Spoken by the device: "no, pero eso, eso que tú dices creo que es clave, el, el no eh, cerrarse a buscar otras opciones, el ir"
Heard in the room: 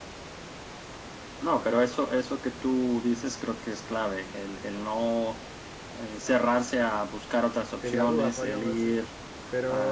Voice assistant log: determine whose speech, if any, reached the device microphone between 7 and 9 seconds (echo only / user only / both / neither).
both